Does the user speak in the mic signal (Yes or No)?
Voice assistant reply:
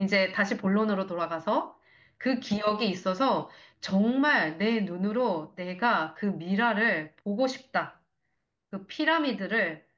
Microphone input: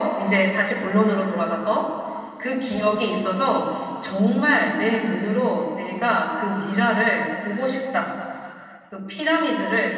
No